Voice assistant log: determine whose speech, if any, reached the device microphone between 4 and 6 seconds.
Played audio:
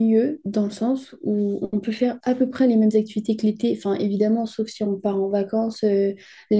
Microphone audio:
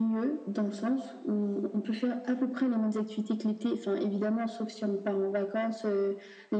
echo only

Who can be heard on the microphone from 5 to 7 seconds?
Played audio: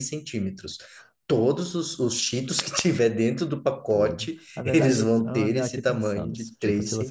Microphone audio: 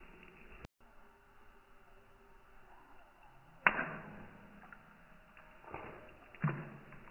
neither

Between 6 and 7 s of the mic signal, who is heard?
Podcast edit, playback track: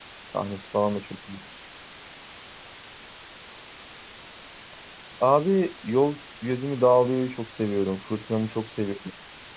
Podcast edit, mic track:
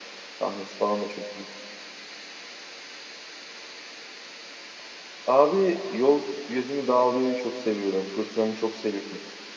echo only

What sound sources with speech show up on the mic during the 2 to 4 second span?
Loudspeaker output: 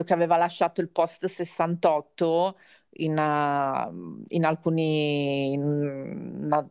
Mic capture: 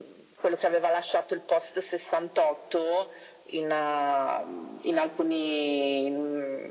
echo only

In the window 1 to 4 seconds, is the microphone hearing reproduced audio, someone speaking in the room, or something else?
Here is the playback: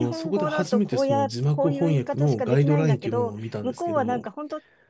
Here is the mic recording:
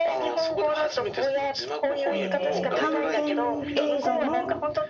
both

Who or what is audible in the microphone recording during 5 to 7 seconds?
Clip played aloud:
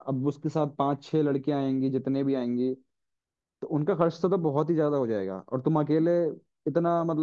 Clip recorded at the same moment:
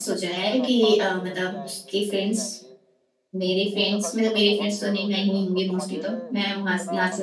both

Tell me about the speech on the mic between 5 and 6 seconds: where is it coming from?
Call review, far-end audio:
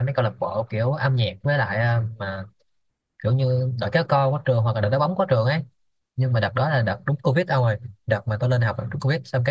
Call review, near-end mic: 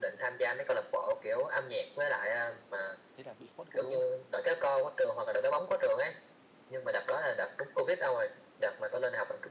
echo only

